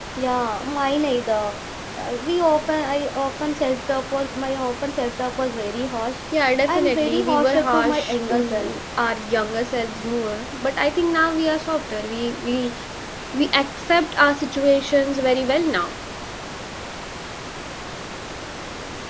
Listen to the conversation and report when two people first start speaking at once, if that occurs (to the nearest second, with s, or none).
7 s